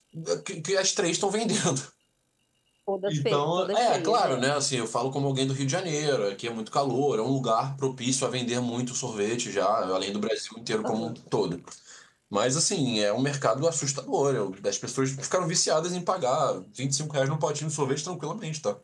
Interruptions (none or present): present